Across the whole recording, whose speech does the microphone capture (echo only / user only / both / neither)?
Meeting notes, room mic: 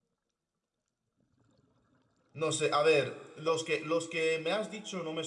user only